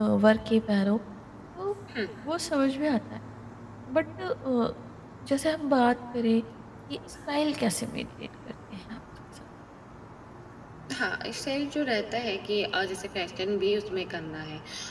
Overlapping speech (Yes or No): No